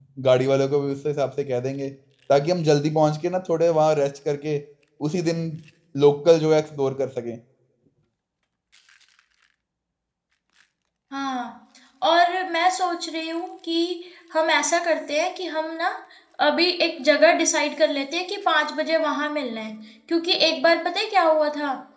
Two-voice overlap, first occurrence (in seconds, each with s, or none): none